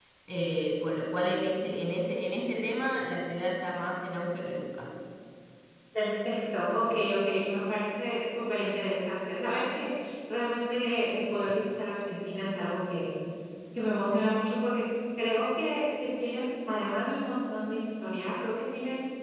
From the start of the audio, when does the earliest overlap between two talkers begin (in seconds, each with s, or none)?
none